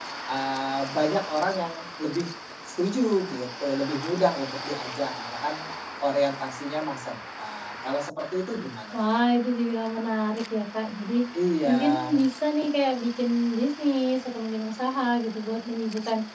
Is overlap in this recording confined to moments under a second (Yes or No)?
Yes